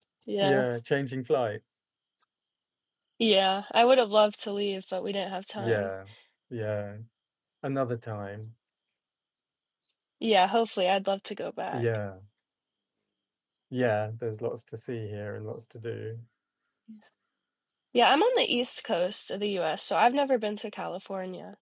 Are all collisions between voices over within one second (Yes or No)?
Yes